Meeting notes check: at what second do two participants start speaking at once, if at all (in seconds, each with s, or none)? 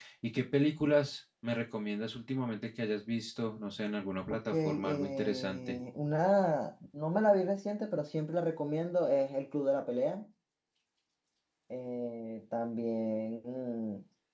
4.5 s